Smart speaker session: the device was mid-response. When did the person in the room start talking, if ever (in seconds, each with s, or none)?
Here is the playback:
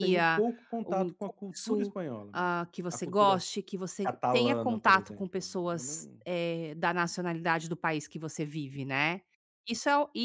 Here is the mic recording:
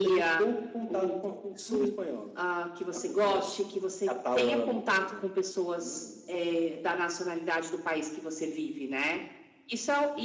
none